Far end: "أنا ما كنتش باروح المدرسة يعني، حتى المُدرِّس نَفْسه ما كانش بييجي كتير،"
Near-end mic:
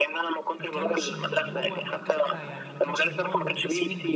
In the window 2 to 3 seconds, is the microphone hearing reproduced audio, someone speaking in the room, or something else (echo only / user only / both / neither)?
both